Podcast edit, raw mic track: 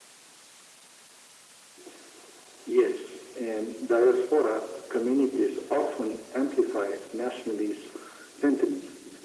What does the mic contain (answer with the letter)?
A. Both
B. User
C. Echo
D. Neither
C